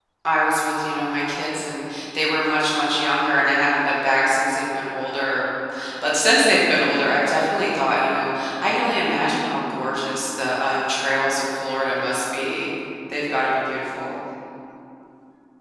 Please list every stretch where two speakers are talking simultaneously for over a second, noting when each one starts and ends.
none

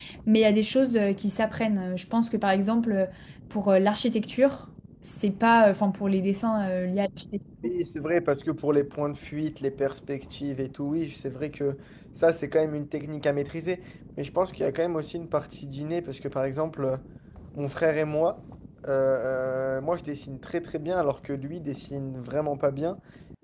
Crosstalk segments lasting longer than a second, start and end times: none

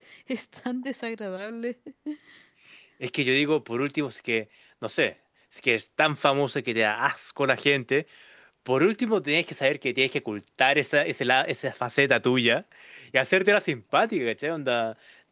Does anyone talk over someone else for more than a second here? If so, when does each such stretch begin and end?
none

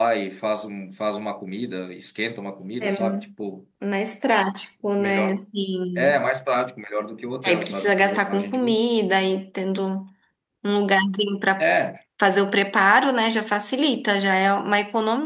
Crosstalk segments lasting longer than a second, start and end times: 7.4-8.8

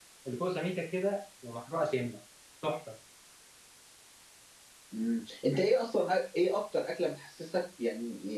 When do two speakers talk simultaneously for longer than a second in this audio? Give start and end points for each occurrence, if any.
none

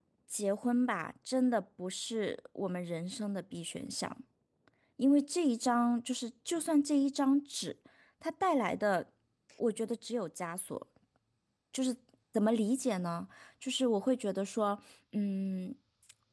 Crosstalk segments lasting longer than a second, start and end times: none

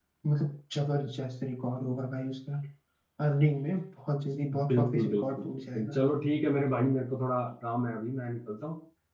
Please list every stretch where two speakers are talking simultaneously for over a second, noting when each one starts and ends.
4.4-6.0

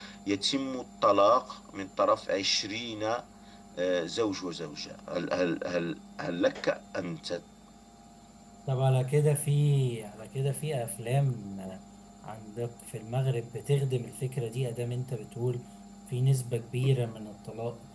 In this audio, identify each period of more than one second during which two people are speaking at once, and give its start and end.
none

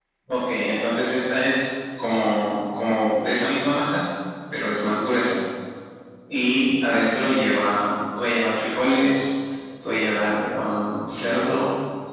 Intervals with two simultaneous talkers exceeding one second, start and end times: none

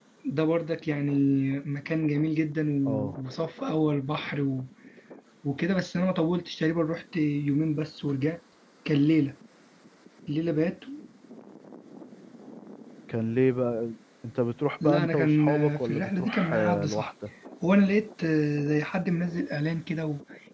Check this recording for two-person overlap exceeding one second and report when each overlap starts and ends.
14.8-17.1

